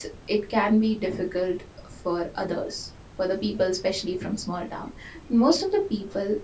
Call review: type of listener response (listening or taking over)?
listening